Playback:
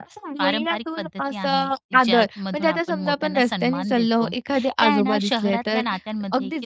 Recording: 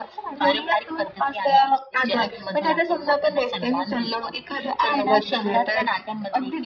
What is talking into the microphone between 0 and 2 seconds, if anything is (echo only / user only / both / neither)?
echo only